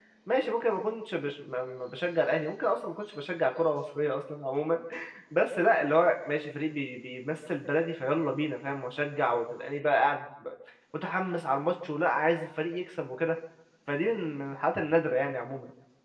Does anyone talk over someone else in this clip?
No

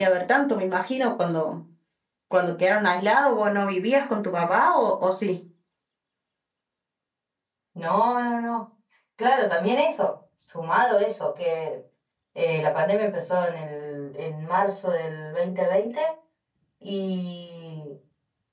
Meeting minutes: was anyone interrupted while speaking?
No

